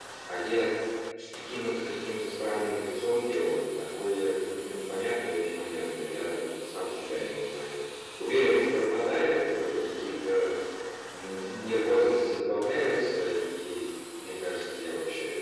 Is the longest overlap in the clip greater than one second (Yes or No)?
No